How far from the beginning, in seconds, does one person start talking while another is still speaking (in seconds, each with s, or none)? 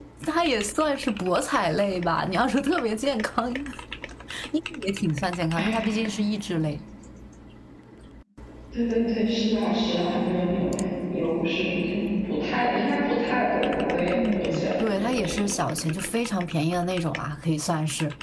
14.1 s